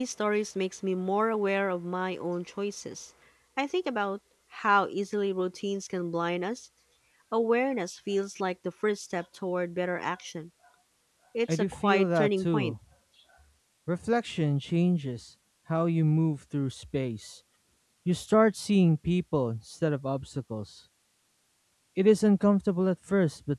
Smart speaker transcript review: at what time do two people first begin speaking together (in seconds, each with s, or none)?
11.5 s